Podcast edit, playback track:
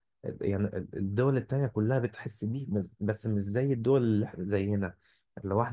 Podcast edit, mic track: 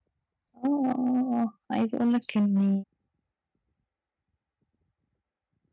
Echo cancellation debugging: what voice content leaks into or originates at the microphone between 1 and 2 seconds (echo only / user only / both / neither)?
user only